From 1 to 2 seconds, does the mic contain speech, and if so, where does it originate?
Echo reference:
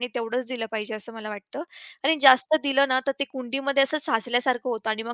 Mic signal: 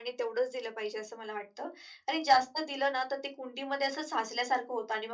echo only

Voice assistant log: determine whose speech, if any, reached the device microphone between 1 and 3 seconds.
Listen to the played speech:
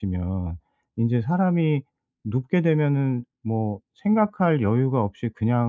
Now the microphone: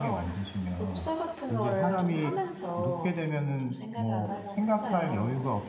both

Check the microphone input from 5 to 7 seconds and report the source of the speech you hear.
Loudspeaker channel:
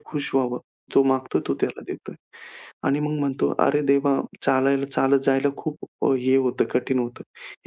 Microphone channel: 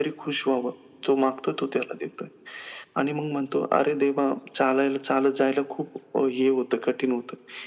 echo only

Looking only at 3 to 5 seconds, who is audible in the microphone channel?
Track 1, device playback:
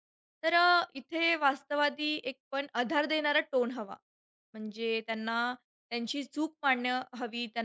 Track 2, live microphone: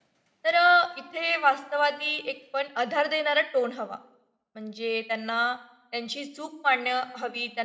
echo only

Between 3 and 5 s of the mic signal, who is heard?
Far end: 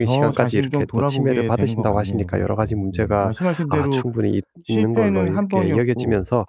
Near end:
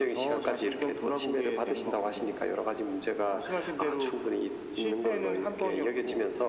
echo only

